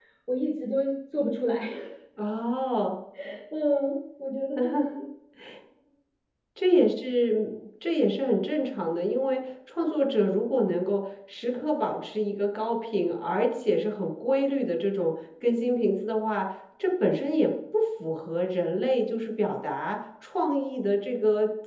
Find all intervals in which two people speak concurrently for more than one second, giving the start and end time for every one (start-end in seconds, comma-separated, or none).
none